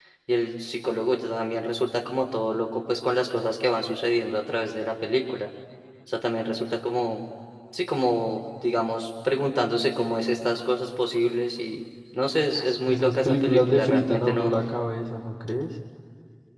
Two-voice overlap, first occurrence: 12.6 s

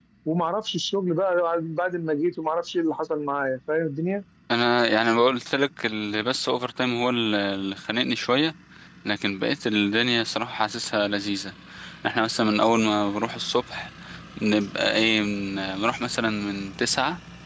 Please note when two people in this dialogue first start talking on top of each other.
none

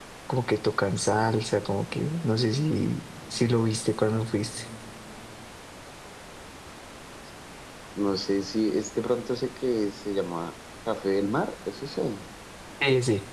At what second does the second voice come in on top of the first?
none

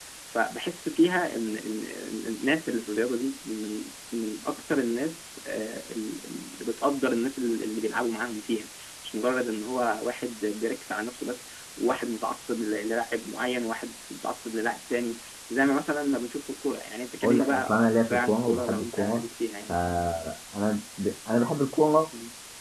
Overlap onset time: 17.2 s

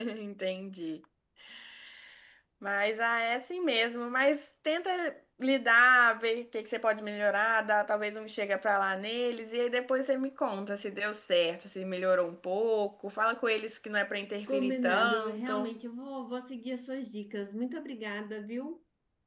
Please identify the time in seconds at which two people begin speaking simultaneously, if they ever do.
14.5 s

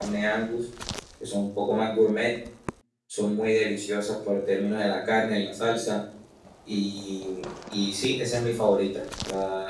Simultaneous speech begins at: none

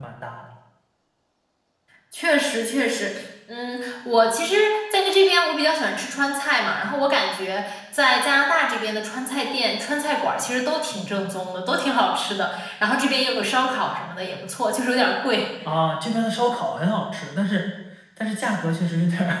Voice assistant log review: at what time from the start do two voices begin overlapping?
none

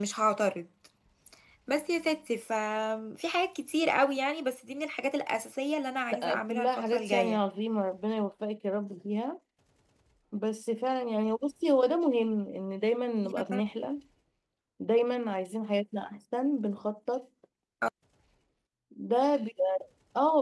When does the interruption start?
6.1 s

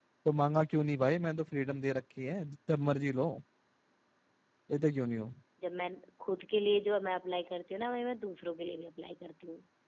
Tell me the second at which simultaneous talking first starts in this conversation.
none

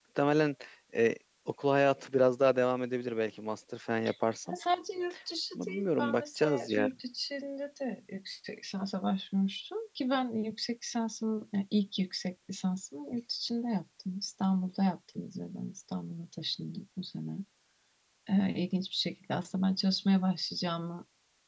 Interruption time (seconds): 5.5 s

